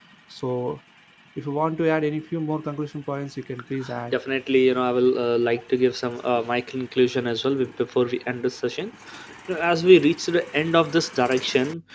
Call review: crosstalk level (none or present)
none